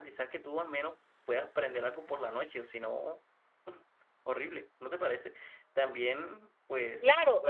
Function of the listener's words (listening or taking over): taking over